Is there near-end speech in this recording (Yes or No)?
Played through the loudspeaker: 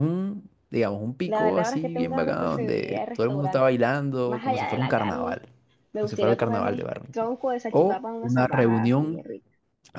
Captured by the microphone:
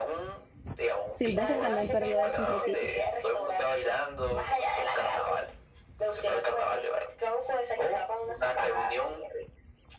Yes